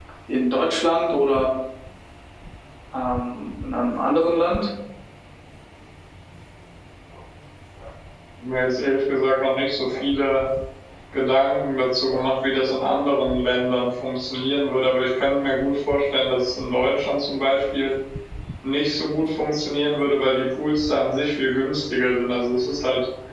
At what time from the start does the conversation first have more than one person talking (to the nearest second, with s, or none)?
none